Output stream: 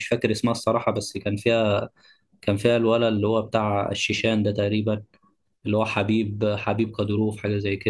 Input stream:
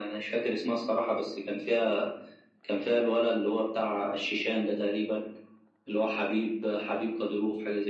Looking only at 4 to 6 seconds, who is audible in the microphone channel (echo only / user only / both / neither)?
echo only